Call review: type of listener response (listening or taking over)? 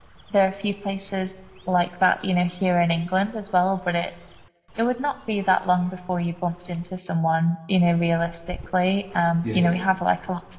listening